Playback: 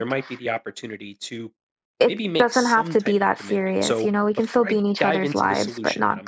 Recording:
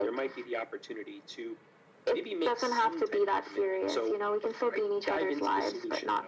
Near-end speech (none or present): none